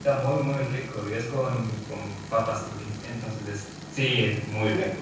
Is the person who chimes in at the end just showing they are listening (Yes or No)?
No